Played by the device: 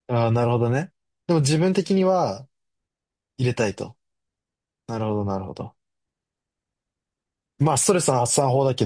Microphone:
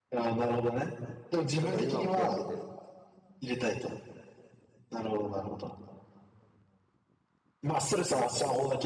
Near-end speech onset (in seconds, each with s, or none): 1.6 s